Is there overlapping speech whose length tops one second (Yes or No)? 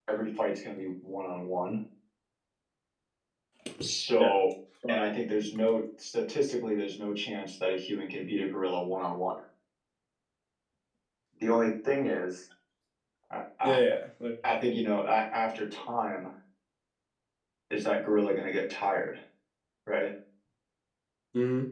No